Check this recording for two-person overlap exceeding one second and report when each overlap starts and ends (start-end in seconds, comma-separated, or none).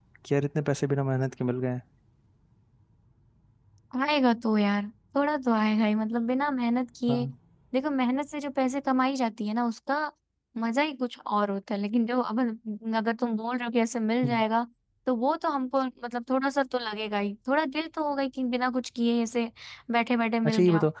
none